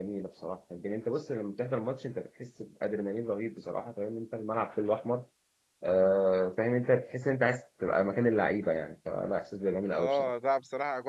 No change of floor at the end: No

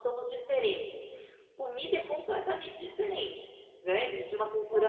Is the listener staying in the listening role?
No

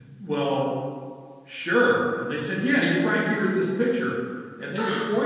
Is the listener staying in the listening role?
Yes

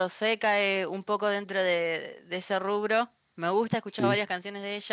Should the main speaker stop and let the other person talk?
No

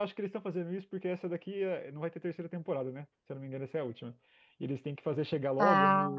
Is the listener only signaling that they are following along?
Yes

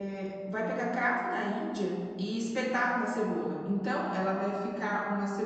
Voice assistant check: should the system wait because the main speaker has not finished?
Yes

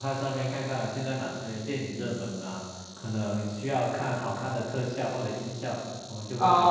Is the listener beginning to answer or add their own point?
Yes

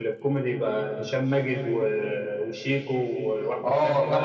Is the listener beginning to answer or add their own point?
Yes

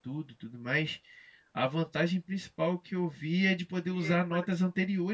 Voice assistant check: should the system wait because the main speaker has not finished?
Yes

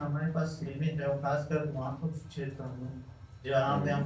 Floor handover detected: No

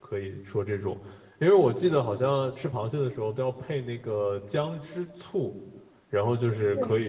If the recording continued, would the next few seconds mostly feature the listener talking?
No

